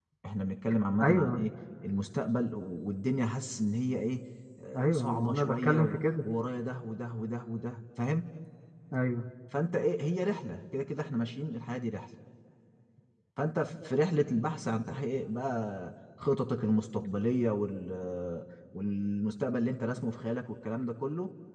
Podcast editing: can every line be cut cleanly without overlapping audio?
No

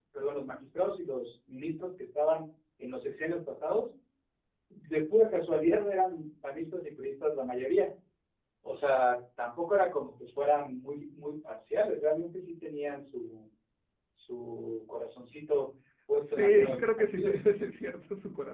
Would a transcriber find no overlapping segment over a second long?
No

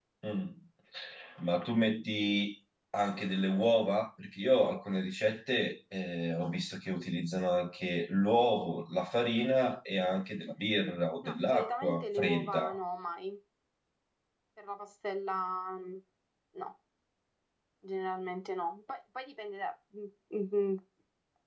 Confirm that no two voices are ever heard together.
No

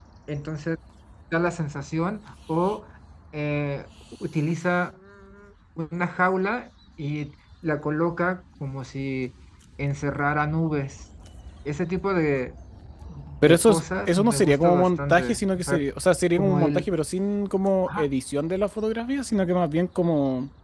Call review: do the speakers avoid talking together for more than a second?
No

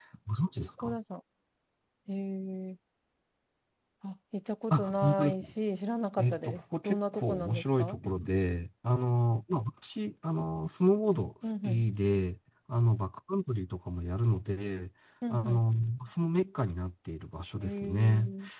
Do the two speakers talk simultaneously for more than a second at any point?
Yes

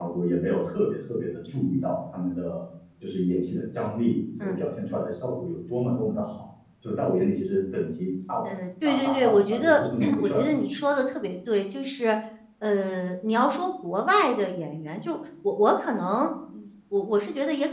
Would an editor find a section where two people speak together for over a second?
Yes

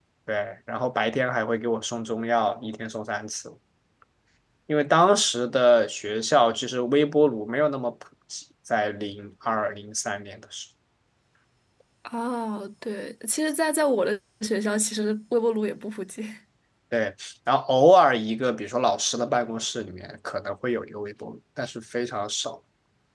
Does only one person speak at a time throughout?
Yes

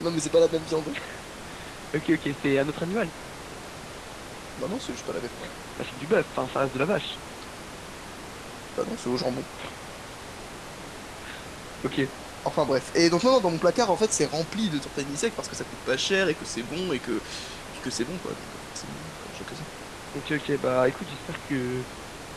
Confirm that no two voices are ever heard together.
Yes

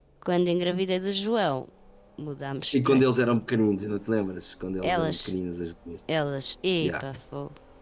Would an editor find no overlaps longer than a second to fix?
Yes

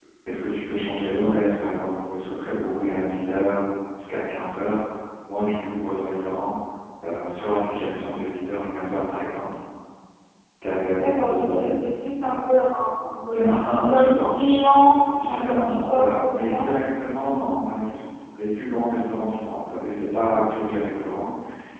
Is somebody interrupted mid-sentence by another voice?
Yes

